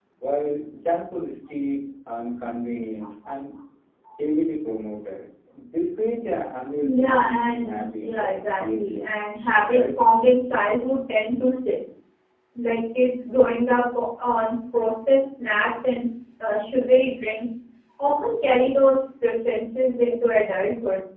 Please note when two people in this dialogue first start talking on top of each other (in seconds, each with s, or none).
6.8 s